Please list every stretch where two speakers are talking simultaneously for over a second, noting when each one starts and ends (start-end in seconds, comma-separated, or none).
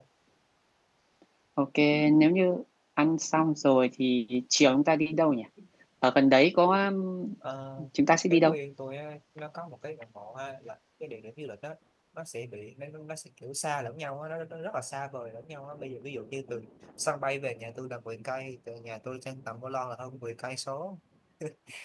none